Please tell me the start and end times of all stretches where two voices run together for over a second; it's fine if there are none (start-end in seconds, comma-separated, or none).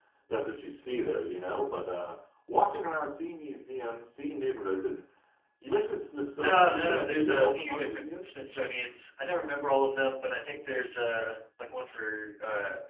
6.4-8.3